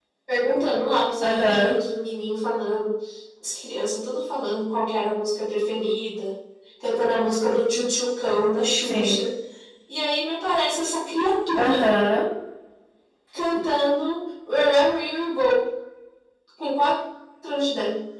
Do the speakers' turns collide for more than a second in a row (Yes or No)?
No